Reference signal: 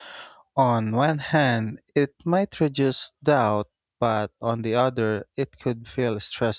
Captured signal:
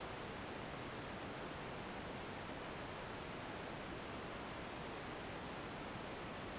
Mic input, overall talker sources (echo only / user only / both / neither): neither